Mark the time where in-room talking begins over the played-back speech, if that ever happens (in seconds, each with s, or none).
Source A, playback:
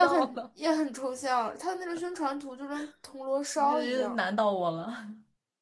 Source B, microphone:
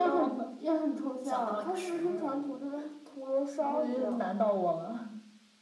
1.2 s